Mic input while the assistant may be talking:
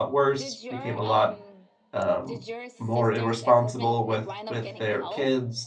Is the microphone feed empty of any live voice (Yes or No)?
No